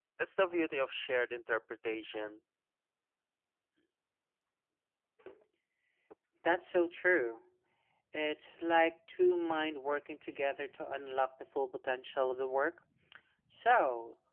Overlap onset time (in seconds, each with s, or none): none